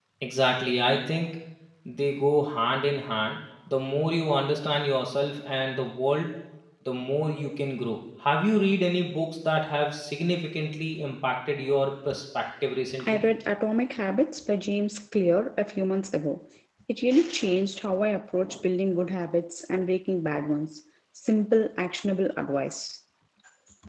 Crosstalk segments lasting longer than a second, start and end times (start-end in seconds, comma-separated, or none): none